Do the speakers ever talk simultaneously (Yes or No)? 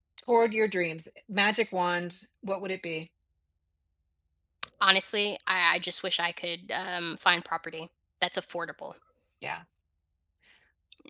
No